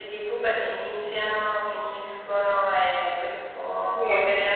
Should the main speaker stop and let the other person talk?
No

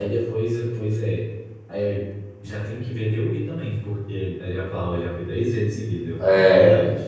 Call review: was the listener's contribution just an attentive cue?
No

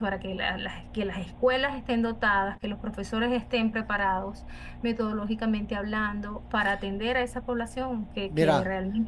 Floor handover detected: Yes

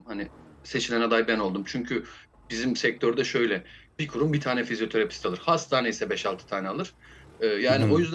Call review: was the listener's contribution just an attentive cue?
Yes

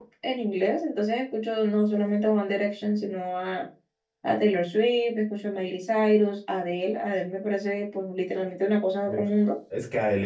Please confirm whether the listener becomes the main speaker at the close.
Yes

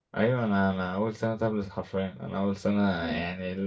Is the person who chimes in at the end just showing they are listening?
Yes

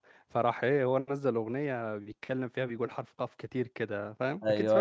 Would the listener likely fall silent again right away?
No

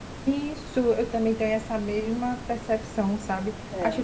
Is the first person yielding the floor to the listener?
No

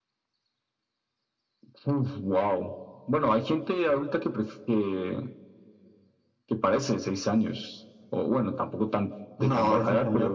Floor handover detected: Yes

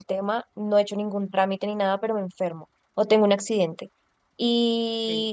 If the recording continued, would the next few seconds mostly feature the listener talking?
No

